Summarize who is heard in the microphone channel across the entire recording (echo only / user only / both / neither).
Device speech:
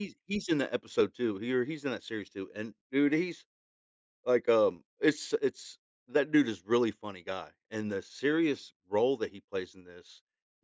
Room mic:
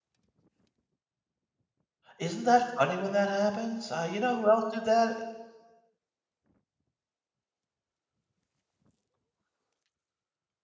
user only